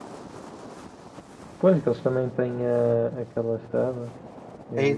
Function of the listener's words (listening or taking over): taking over